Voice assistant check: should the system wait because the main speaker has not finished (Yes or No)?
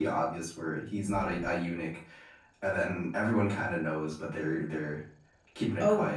No